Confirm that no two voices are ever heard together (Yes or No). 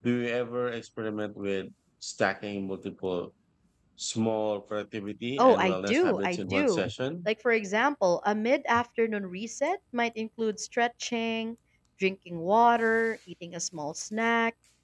No